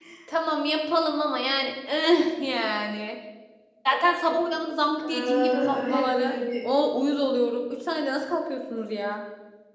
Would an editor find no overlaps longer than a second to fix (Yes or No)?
No